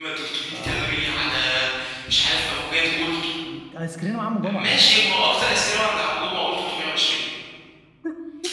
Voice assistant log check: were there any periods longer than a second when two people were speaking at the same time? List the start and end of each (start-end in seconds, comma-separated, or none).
none